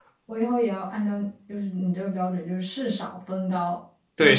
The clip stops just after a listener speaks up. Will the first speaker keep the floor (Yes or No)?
No